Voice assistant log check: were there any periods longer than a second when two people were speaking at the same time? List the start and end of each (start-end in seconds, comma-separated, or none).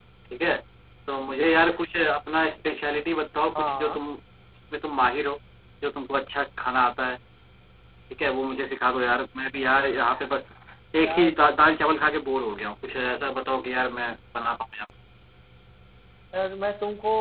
none